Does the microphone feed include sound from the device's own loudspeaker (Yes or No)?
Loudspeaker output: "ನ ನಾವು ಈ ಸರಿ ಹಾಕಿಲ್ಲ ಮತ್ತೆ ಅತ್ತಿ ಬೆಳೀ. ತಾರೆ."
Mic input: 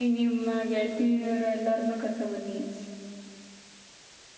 No